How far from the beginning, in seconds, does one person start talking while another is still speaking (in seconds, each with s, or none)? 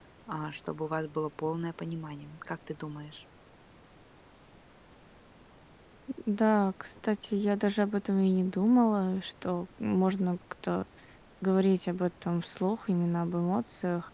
none